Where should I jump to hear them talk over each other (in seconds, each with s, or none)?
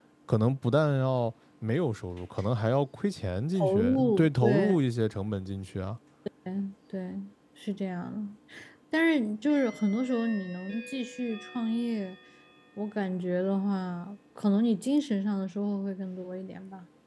3.6 s